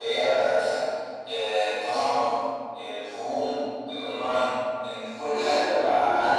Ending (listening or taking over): listening